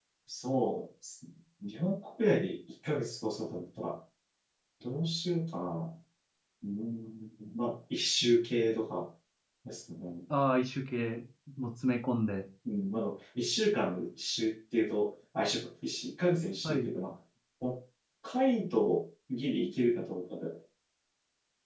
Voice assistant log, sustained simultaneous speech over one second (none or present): none